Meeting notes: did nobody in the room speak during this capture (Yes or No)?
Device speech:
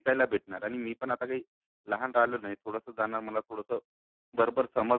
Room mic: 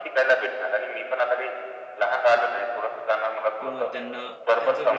No